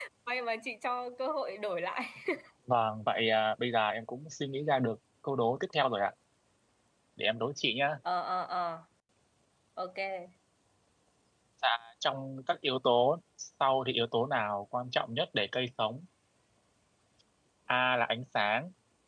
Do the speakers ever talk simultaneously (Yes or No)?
No